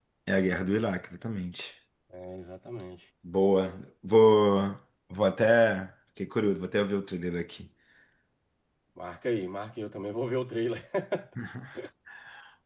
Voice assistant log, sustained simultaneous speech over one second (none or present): none